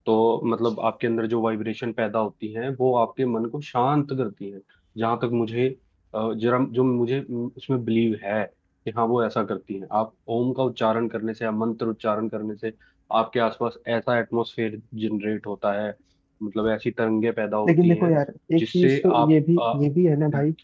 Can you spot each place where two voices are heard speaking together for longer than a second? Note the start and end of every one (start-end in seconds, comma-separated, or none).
18.6-19.8